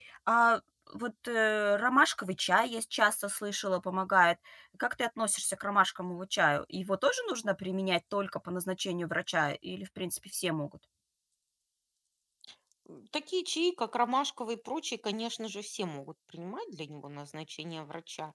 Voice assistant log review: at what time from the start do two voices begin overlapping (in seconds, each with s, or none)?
none